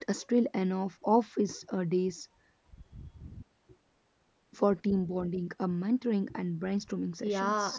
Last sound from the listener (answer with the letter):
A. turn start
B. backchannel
A